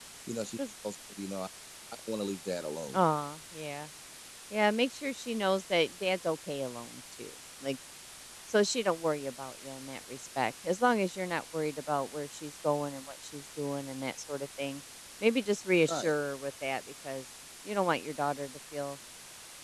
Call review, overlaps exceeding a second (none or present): none